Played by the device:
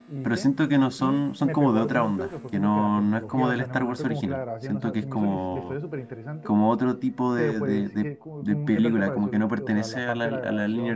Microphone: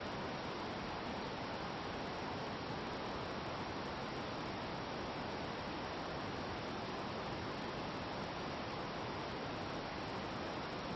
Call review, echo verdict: none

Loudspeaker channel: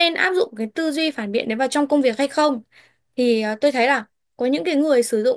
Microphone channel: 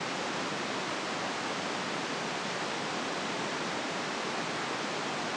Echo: none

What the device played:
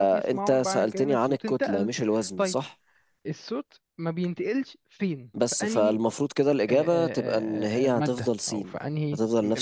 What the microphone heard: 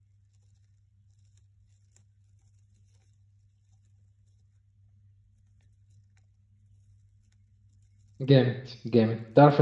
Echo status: none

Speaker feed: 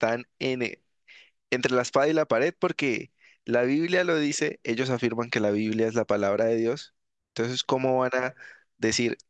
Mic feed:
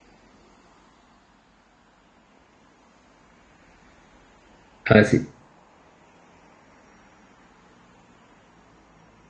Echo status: none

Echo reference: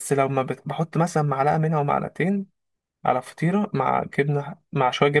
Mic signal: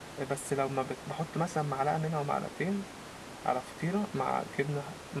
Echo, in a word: present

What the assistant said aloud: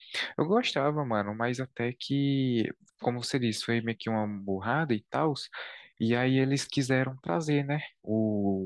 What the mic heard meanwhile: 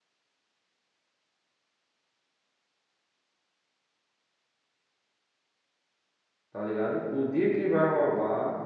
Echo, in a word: none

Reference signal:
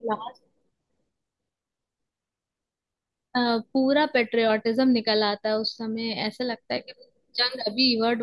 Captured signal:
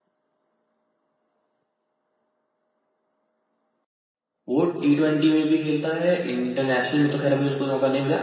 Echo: none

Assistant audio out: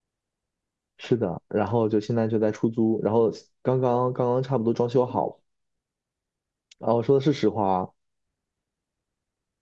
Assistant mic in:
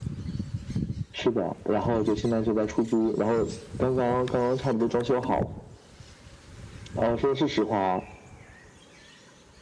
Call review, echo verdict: present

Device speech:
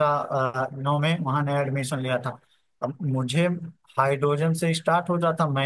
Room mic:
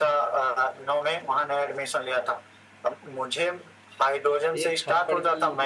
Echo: present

